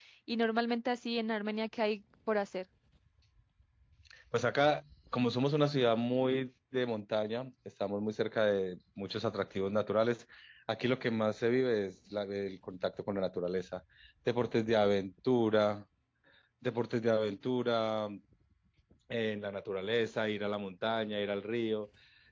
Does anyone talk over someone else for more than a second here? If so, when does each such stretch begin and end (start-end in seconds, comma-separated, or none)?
none